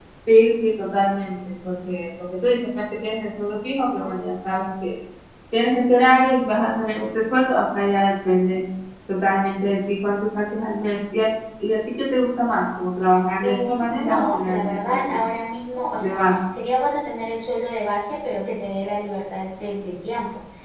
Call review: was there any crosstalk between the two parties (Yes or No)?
Yes